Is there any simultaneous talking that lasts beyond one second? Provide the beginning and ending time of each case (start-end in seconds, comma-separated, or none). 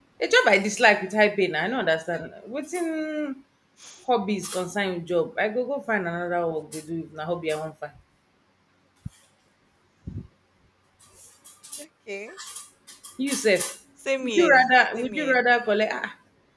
14.2-15.4